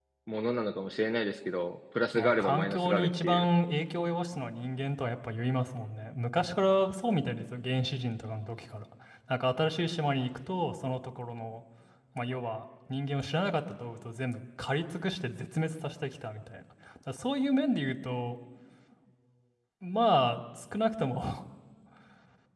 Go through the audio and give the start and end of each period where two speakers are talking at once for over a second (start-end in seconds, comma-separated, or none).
2.1-3.5